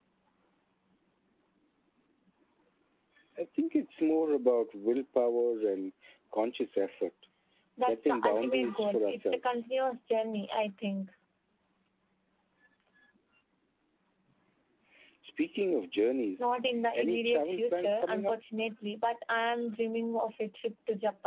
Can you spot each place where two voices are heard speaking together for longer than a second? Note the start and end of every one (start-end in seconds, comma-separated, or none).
7.8-9.4, 16.9-18.3